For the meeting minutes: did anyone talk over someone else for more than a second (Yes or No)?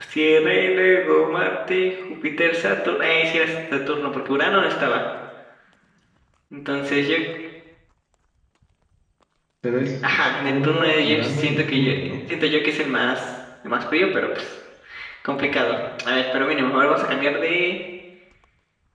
Yes